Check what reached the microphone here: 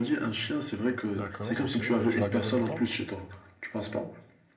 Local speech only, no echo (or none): D'accord, ok. Et tu l'as gardé longtemps?